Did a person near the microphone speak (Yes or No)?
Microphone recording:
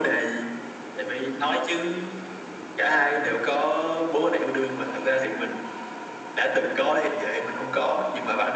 No